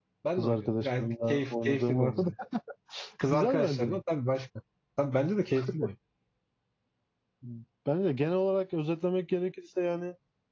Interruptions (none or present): present